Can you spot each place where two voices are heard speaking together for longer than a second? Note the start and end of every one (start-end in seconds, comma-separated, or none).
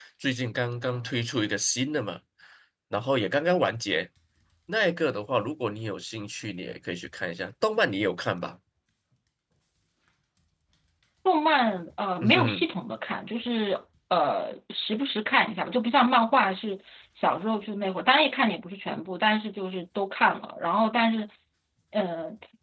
none